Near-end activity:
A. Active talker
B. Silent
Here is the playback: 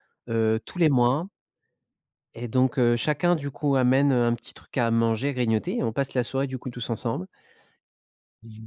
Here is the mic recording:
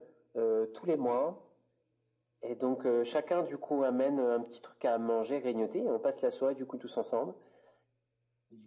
B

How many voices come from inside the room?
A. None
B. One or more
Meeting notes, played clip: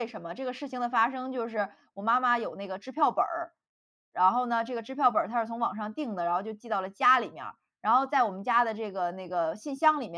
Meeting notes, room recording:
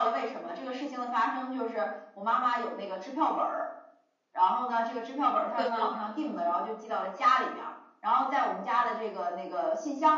B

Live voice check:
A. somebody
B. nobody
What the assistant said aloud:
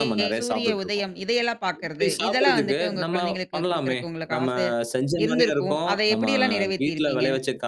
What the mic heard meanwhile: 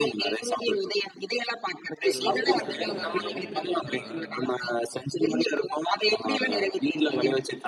A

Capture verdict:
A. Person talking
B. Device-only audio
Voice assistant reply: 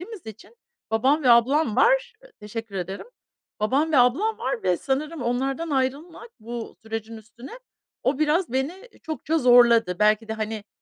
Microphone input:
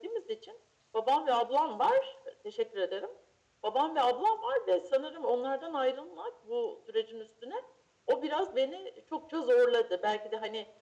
B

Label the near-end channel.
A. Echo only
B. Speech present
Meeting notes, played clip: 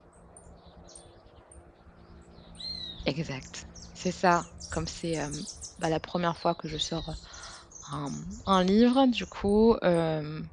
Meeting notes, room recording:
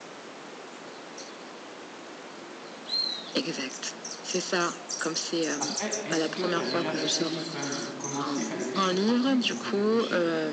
B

